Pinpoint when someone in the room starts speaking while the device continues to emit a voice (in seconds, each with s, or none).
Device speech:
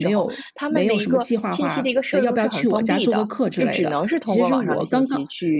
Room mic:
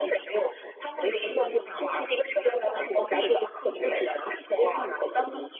1.4 s